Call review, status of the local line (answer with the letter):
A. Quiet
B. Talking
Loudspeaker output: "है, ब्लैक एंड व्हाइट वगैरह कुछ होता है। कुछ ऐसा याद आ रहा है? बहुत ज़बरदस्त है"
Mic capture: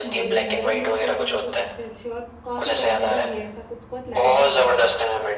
B